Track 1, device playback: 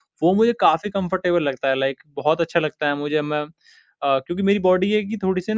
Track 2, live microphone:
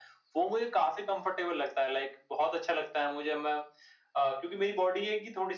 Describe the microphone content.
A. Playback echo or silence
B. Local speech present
A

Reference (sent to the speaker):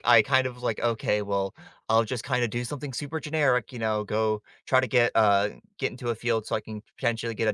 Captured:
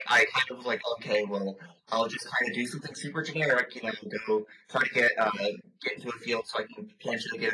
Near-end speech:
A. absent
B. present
A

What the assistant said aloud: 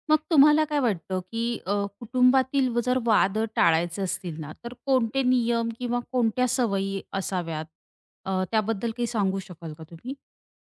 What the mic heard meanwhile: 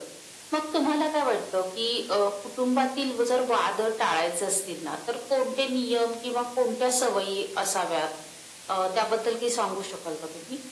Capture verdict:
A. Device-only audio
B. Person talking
A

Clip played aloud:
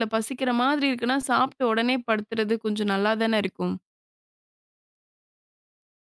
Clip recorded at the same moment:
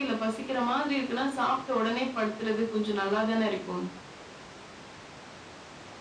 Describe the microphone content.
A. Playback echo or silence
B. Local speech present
A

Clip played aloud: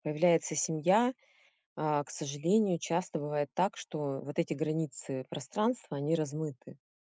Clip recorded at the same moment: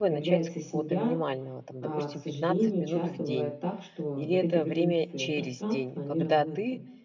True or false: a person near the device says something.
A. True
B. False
A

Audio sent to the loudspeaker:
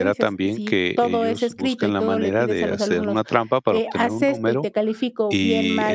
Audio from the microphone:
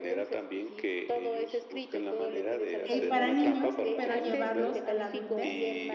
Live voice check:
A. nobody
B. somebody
B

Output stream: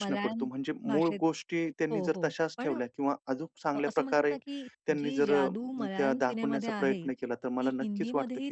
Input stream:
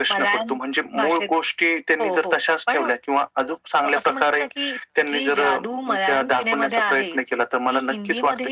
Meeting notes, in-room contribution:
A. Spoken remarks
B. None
B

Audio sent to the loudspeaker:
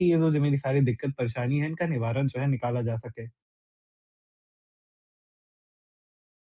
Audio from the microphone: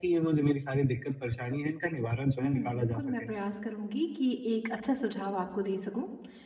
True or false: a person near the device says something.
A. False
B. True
B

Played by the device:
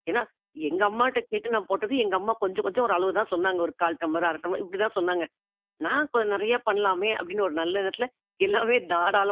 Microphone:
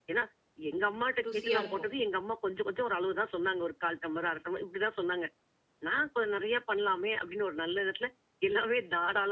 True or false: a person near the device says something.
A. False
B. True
B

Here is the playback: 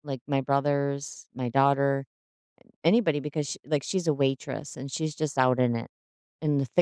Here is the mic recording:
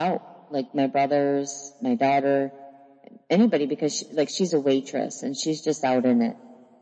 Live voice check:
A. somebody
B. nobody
B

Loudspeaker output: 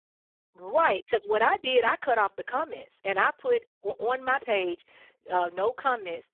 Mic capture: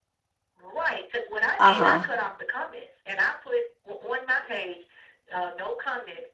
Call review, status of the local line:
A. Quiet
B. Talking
B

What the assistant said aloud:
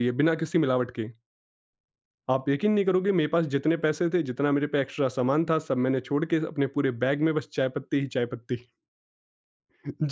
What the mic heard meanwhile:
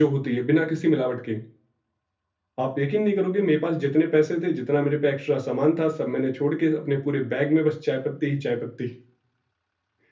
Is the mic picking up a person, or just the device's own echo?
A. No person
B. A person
A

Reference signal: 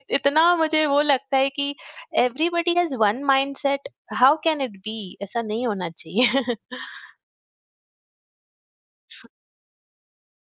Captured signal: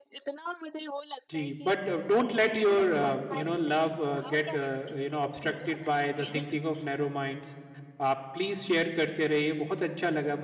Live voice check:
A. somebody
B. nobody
A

